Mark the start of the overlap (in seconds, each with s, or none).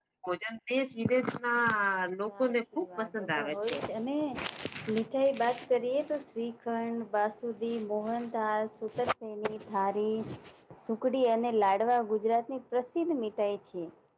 2.3 s